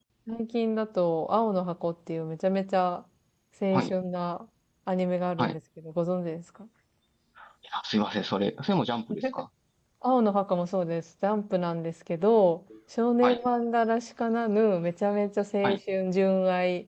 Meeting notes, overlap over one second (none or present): none